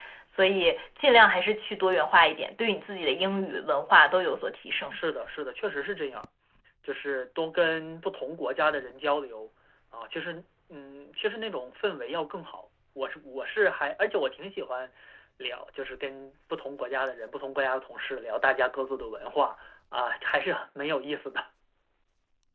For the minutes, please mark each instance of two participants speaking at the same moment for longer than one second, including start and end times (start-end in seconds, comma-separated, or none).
none